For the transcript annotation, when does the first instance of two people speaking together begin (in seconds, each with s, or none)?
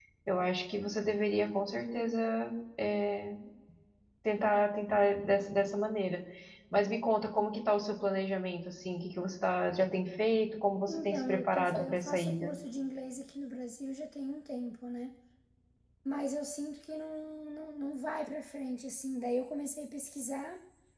10.9 s